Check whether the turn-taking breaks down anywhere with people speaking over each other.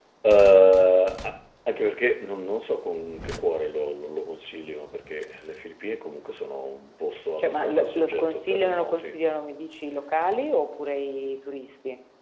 Yes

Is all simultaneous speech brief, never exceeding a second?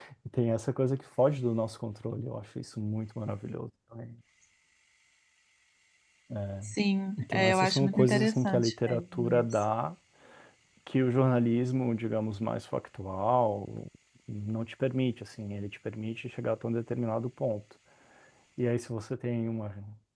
No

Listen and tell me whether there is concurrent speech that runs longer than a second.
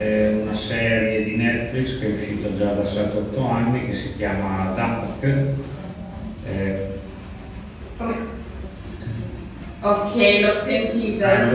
No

